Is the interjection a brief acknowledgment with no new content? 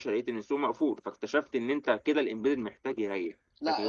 No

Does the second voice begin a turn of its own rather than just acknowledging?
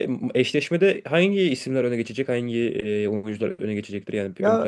Yes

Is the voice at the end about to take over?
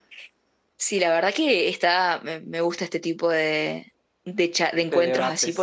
No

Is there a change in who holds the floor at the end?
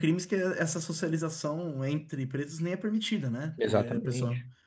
No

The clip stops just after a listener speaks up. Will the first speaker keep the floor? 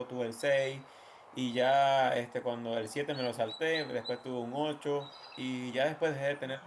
Yes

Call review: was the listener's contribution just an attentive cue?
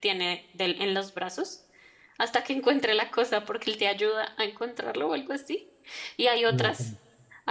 Yes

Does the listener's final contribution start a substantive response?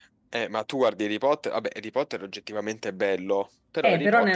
Yes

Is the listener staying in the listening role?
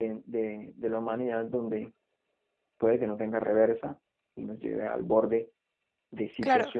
Yes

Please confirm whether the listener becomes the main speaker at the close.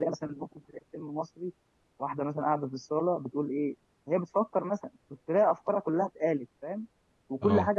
No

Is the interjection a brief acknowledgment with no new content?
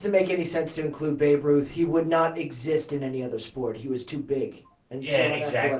No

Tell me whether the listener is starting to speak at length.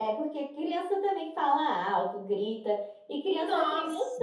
No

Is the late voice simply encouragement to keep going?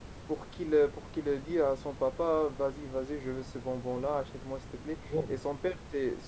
Yes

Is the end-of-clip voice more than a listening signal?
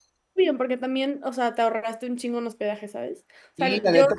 Yes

